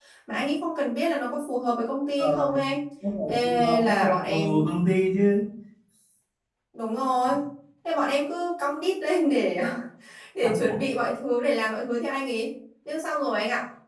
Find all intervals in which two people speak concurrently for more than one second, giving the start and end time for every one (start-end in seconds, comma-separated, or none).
3.3-4.7